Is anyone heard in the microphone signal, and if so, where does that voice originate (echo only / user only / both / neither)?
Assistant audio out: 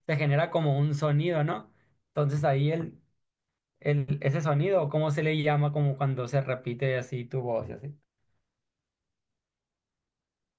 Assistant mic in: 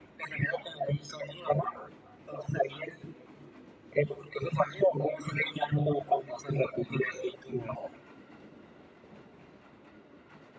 echo only